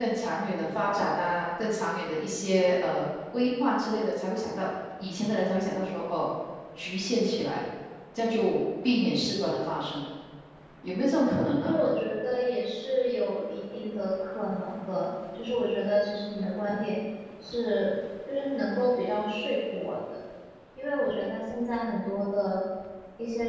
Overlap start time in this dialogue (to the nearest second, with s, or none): none